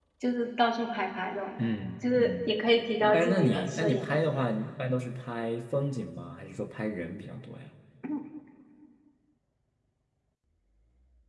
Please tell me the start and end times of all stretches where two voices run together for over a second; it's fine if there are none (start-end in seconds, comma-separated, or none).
3.1-4.5